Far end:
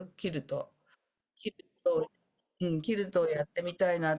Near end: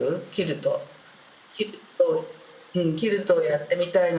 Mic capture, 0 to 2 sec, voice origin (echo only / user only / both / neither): echo only